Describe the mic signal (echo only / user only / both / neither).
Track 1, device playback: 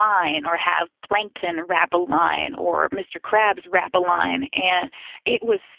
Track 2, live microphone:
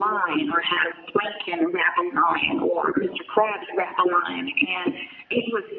echo only